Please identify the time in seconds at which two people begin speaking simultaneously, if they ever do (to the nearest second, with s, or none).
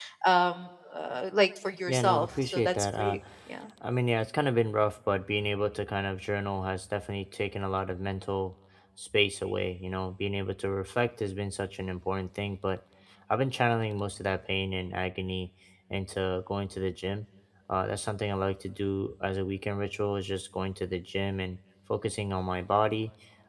2 s